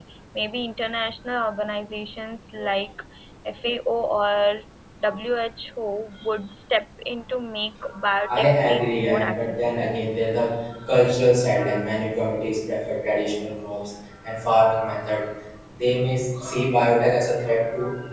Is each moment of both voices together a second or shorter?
No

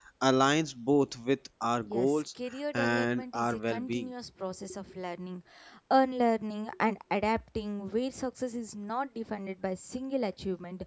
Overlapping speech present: Yes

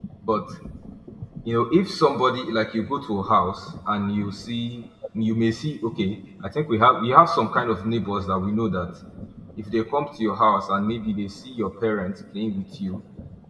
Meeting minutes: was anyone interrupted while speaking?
No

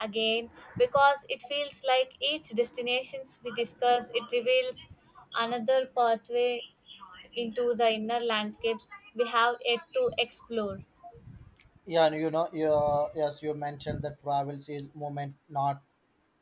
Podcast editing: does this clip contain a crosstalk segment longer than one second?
No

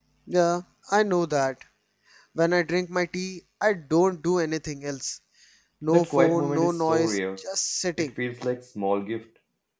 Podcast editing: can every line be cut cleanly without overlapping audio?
No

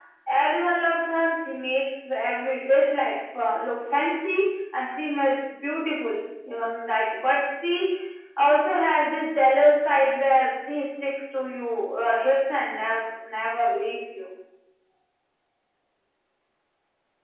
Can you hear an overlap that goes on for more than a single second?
No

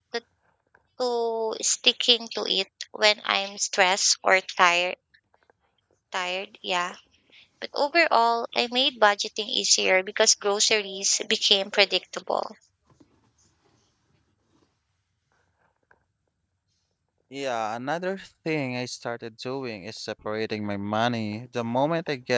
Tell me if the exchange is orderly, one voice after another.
Yes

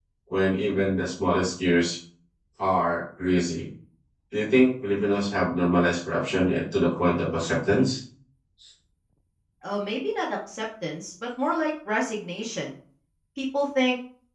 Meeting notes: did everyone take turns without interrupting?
Yes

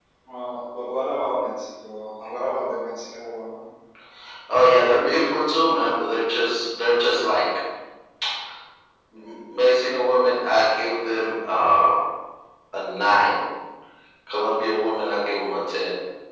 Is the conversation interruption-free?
Yes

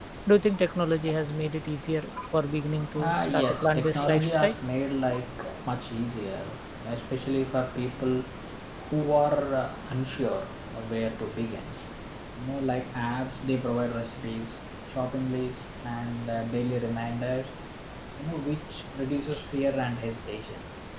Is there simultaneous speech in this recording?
Yes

